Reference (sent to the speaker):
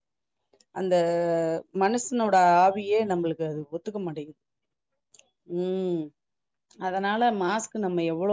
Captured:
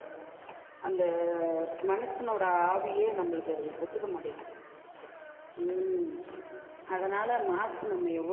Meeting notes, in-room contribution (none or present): none